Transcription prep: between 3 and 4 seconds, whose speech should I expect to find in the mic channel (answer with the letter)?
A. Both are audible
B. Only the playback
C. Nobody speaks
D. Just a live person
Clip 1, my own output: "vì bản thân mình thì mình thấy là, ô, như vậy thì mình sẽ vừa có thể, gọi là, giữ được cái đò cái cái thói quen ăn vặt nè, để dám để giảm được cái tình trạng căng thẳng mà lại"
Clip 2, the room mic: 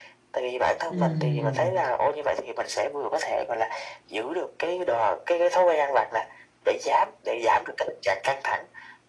B